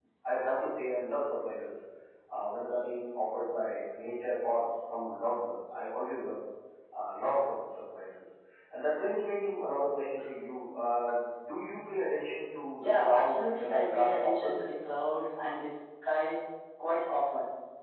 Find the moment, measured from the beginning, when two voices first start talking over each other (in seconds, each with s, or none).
12.8 s